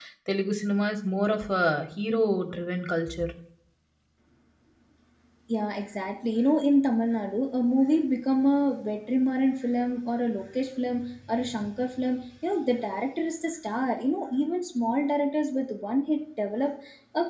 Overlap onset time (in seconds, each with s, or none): none